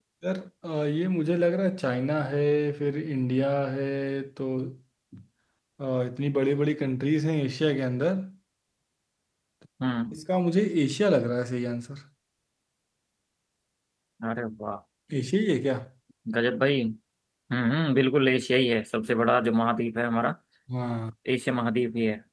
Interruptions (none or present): none